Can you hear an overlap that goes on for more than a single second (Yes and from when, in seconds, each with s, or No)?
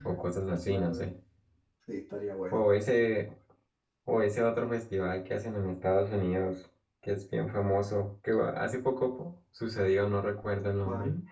No